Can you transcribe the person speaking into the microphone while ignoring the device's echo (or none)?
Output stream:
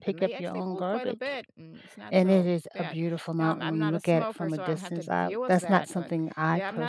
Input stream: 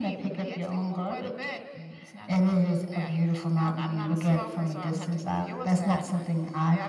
none